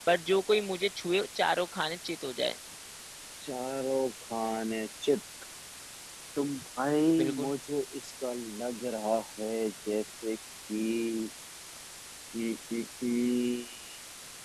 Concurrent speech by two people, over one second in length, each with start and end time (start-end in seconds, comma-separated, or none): none